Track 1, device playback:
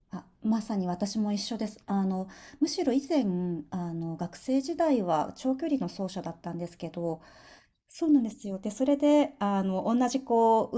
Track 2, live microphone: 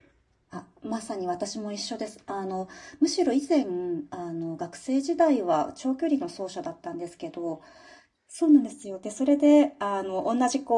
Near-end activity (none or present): none